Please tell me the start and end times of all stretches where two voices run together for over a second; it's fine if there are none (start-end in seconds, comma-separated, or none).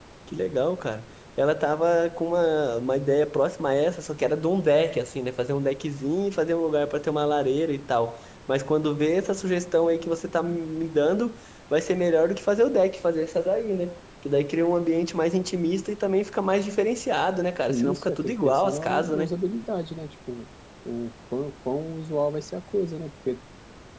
17.7-19.3